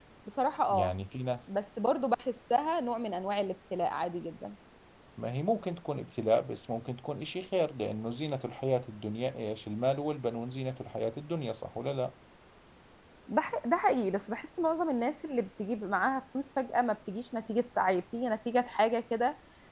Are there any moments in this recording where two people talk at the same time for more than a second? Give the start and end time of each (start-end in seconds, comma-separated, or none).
none